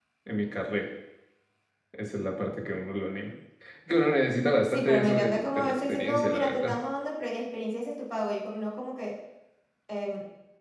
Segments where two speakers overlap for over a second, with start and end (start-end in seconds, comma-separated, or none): 4.6-6.8